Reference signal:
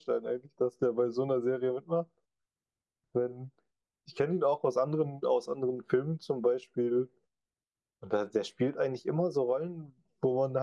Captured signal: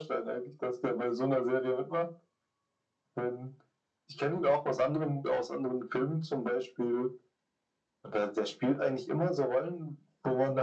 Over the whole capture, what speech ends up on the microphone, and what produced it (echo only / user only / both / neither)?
echo only